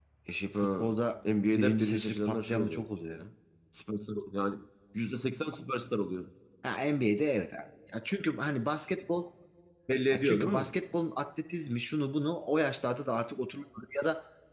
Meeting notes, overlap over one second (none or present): present